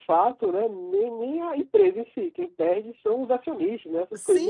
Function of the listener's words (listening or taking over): taking over